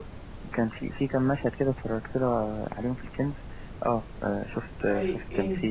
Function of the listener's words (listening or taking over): taking over